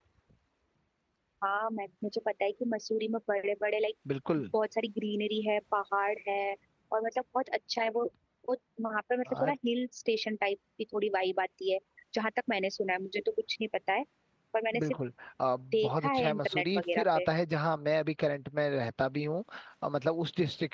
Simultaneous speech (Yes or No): Yes